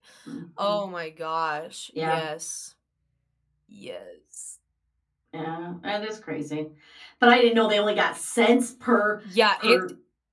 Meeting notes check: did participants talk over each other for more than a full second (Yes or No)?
No